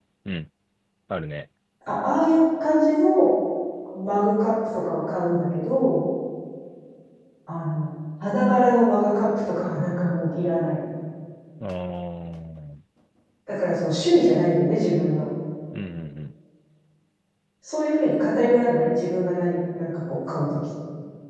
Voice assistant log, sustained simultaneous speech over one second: none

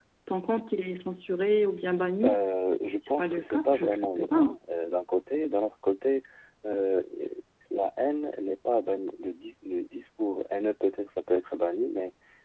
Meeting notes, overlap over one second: present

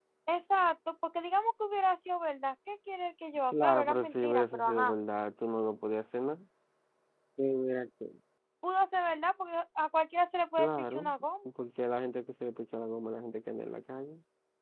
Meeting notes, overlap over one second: present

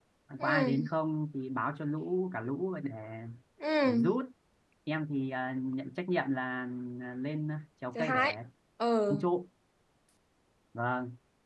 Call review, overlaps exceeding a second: none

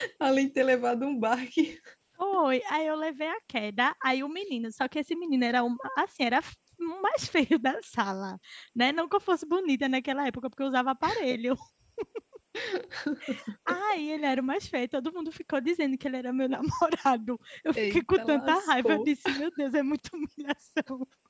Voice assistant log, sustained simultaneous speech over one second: present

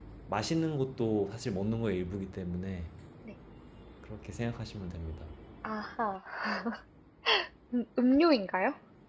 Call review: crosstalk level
none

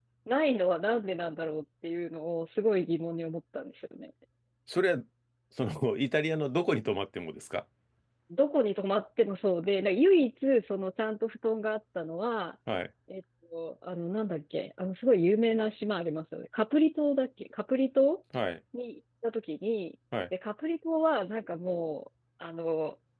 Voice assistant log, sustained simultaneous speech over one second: none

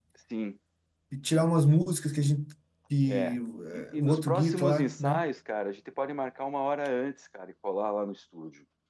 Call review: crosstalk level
present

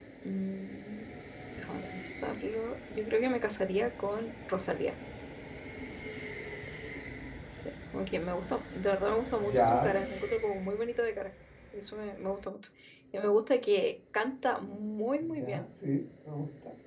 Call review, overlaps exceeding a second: none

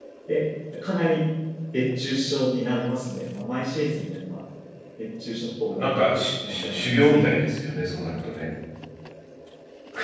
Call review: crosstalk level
present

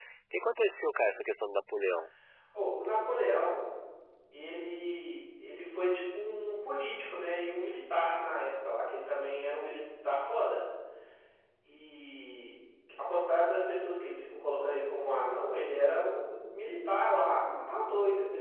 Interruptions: none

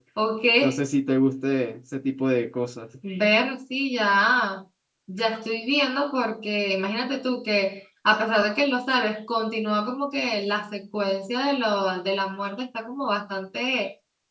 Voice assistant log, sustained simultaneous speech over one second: none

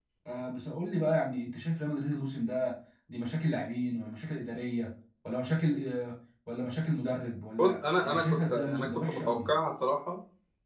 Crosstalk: present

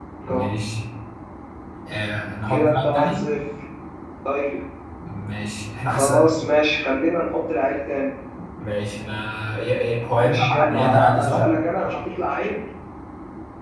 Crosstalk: present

